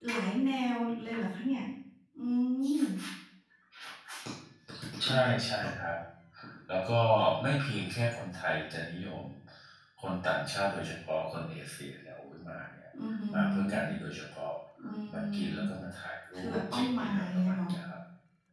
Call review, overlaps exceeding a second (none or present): present